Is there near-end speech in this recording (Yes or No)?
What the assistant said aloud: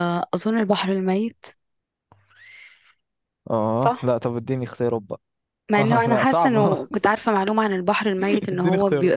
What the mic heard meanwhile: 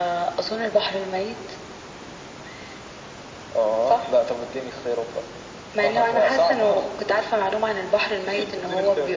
No